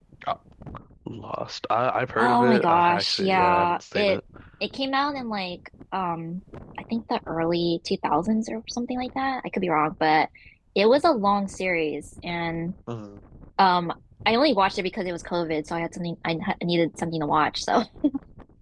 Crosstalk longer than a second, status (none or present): present